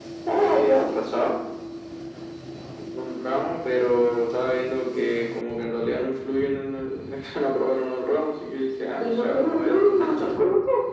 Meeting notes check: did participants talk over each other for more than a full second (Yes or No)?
Yes